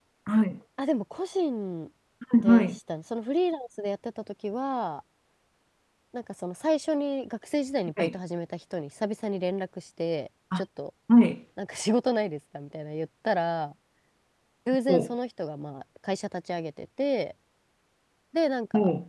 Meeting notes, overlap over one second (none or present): none